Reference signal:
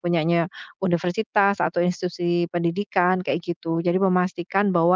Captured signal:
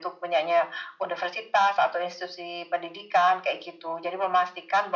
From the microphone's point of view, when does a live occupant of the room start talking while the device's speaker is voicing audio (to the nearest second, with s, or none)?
none